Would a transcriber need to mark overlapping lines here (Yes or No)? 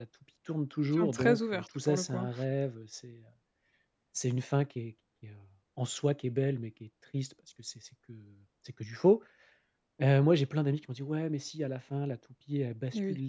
Yes